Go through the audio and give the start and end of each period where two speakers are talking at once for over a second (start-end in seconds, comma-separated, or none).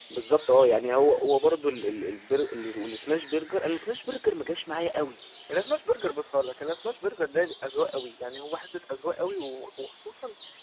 none